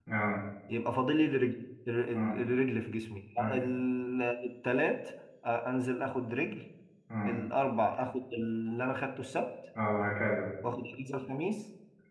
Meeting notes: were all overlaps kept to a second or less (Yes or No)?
Yes